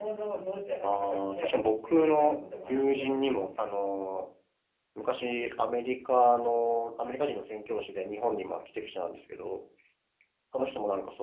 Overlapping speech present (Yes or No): Yes